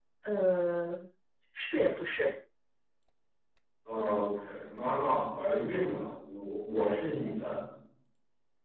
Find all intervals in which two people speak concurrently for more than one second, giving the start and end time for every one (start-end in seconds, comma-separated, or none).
none